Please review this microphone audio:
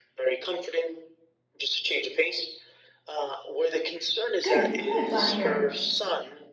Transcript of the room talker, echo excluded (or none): Good, good, glad to hear it.